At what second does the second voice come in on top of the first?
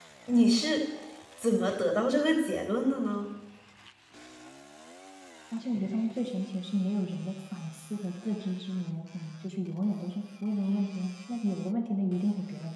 none

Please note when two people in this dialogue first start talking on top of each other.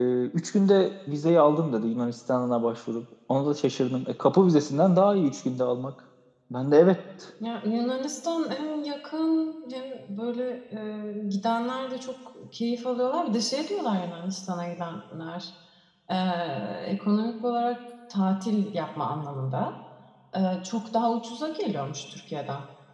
none

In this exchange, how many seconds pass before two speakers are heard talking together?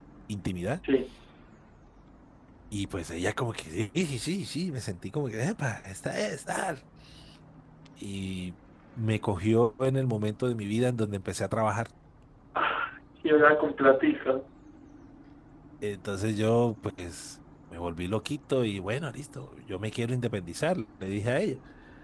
none

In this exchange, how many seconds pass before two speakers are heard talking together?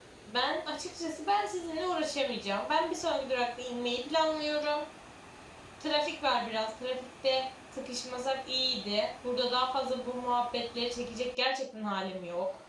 none

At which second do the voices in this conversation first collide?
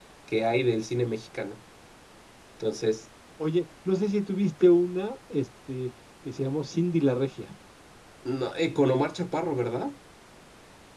none

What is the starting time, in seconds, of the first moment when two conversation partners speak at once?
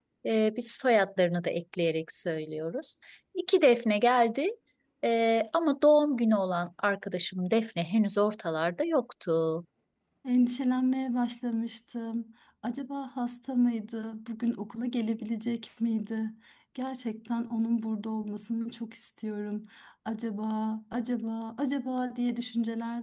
none

